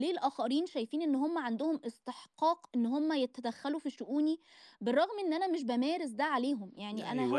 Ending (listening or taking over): taking over